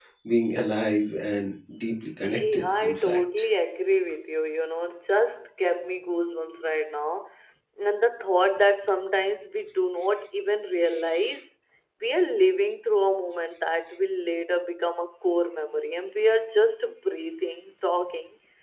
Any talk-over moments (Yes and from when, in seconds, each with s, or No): Yes, from 2.2 s